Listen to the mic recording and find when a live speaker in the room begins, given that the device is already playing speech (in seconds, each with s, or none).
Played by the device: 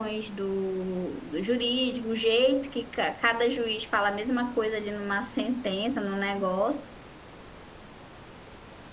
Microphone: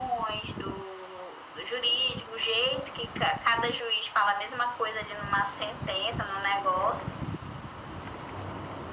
none